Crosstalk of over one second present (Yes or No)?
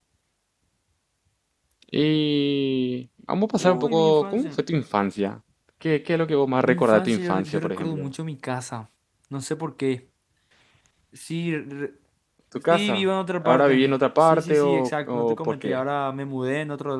Yes